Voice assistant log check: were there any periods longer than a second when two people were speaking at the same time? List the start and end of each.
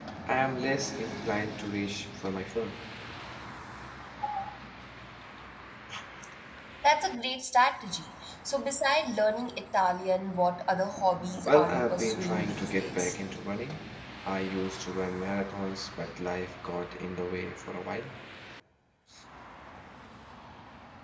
11.4-13.2

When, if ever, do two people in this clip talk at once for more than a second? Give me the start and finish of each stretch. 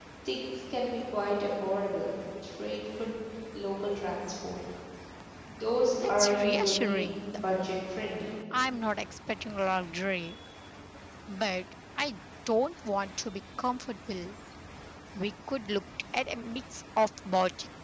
6.0-7.3

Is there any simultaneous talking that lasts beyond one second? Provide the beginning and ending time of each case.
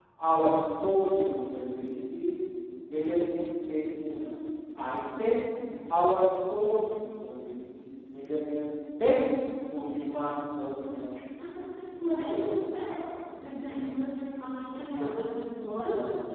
none

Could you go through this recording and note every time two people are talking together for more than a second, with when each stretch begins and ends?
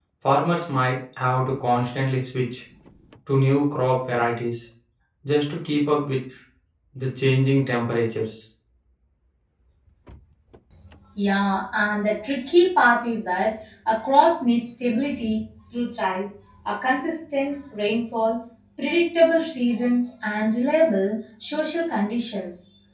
none

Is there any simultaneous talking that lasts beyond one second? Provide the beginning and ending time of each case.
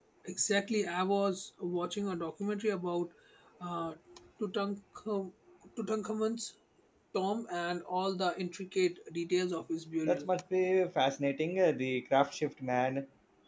none

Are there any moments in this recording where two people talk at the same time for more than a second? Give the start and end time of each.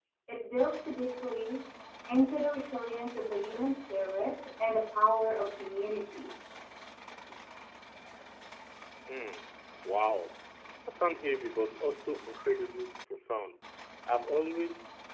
none

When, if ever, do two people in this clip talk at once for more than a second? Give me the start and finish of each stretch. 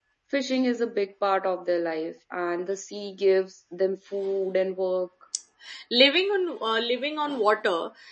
none

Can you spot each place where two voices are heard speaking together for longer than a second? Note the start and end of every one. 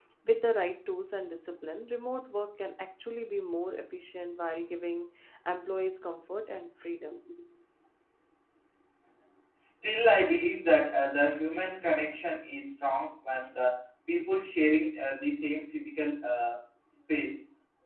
none

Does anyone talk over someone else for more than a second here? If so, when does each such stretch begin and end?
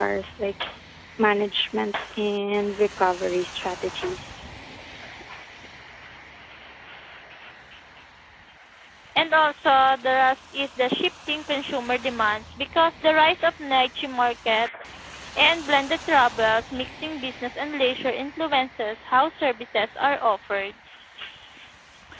none

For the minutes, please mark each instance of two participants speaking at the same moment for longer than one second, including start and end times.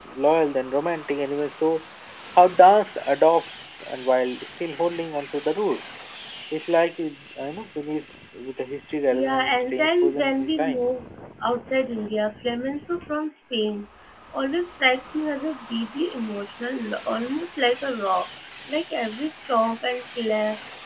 9.1-10.9

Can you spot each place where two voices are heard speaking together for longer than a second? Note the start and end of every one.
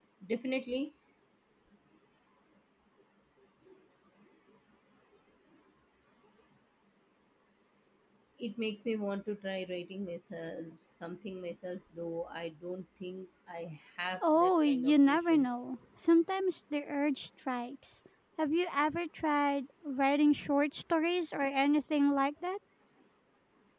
14.2-15.6

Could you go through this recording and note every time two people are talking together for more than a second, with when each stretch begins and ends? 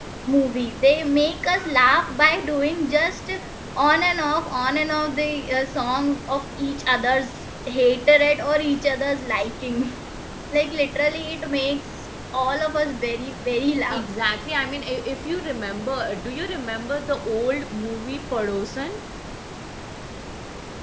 none

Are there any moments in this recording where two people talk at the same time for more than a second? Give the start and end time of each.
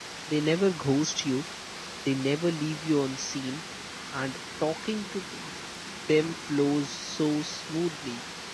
none

